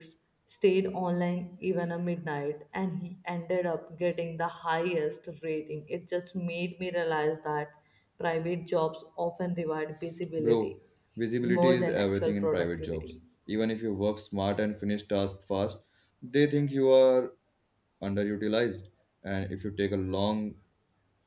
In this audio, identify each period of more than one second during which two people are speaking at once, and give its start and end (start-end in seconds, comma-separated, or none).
11.4-13.2